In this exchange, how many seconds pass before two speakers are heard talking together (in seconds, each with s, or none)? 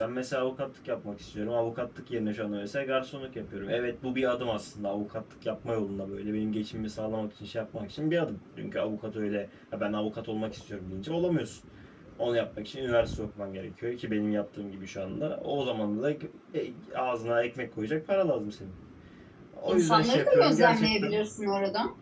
19.7 s